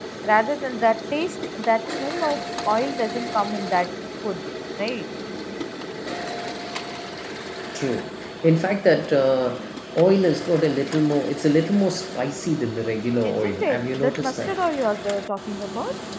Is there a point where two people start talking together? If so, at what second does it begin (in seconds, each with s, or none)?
13.2 s